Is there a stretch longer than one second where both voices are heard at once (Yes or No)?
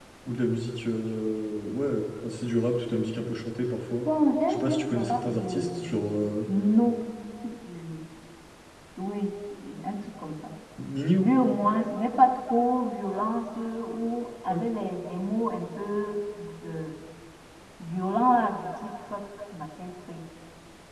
Yes